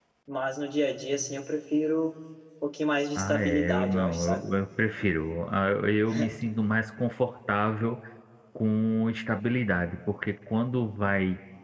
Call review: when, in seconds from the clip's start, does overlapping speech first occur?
3 s

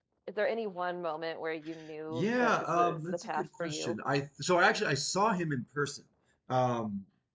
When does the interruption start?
2 s

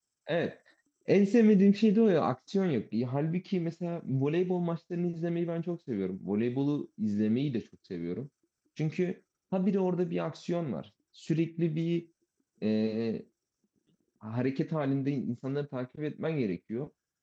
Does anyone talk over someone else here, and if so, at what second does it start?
none

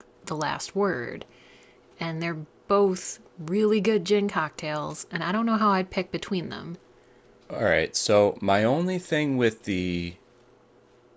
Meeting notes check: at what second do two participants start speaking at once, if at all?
none

